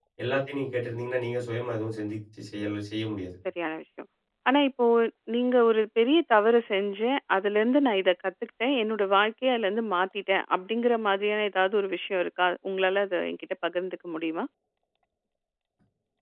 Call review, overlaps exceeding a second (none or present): none